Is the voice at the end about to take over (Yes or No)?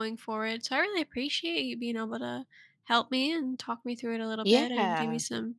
No